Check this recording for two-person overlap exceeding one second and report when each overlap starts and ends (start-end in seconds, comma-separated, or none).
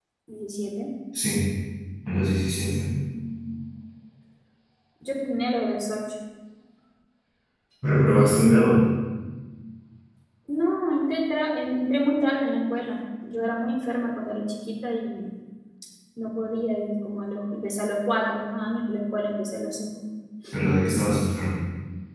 none